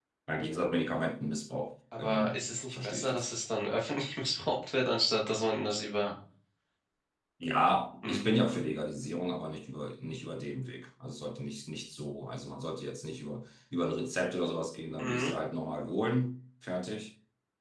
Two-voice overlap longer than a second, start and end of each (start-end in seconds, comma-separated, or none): 2.0-3.3